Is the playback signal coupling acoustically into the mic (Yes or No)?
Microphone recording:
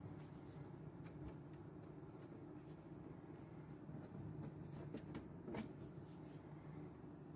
No